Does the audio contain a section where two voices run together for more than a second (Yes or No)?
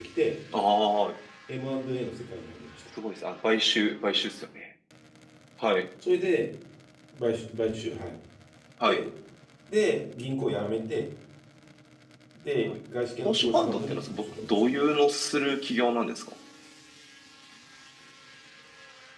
Yes